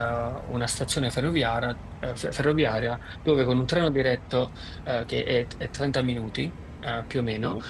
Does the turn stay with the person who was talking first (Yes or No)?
Yes